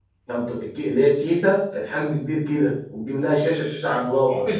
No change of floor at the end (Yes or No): No